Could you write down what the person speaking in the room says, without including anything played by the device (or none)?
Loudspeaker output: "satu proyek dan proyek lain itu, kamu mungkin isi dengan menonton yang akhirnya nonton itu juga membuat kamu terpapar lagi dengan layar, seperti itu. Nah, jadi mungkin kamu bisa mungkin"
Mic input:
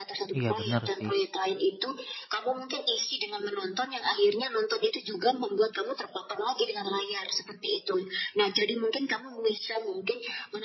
Iya bener sih.